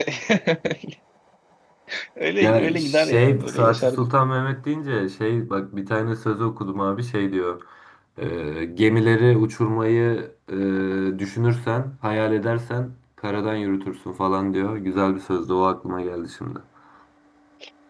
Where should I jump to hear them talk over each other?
2.4 s

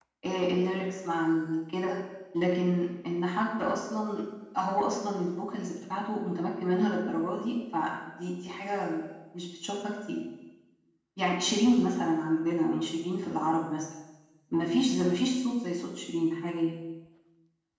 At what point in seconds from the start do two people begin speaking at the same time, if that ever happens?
none

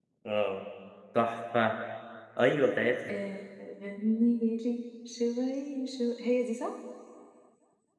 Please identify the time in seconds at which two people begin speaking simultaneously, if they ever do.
none

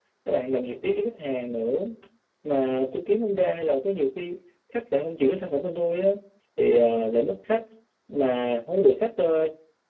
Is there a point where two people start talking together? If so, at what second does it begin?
none

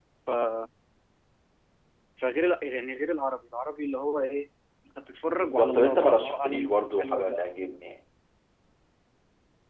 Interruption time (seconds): 5.3 s

